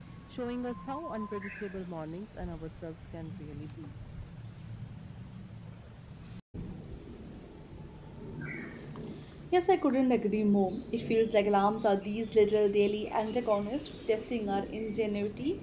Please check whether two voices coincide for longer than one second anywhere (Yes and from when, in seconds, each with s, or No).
No